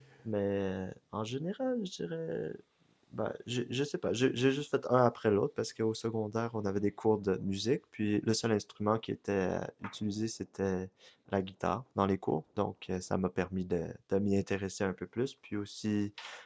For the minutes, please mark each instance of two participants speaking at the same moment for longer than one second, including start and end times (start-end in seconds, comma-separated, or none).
none